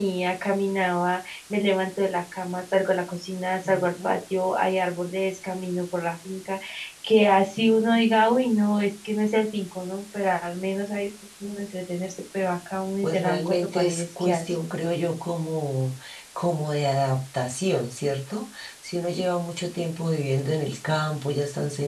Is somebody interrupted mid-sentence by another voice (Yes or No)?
Yes